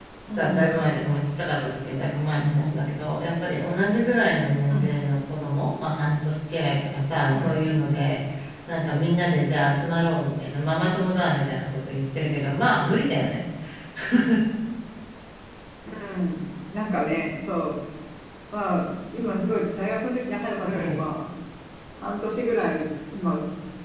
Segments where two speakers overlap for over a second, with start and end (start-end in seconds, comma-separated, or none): none